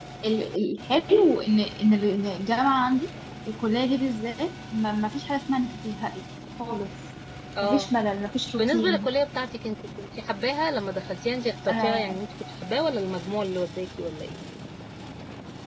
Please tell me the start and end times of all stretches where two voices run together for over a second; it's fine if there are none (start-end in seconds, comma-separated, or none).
none